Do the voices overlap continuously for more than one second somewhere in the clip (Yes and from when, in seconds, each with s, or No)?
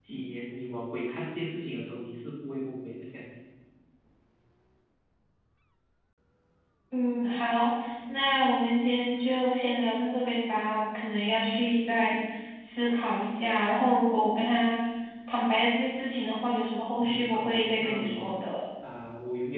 Yes, from 17.0 s